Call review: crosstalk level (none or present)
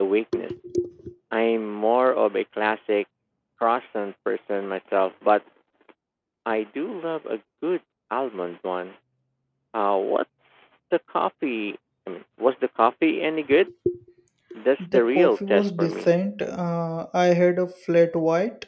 present